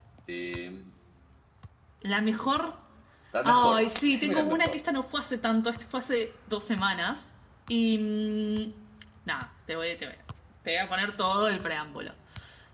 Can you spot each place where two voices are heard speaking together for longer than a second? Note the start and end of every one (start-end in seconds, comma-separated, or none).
3.4-4.8